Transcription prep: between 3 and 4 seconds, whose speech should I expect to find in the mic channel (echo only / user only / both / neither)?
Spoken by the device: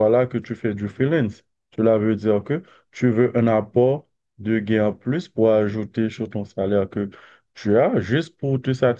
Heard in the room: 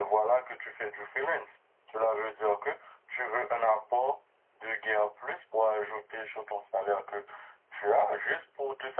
echo only